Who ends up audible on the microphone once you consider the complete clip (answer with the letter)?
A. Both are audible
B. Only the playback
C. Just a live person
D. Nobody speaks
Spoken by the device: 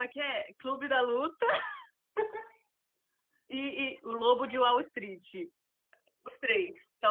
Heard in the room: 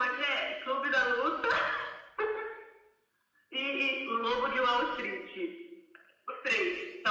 B